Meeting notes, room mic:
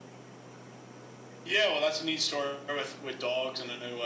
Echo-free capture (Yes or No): Yes